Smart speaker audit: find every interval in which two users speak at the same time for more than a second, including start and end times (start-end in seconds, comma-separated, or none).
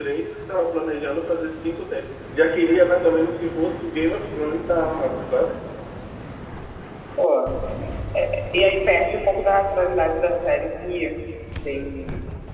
none